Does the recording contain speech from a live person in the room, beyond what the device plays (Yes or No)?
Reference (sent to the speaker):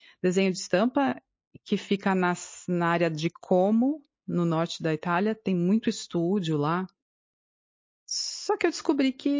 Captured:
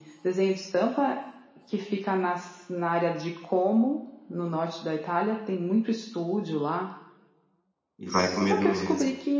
Yes